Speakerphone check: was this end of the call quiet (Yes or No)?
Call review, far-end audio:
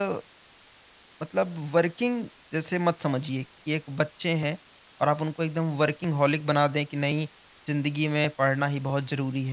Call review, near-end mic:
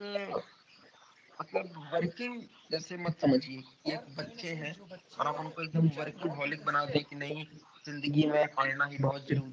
No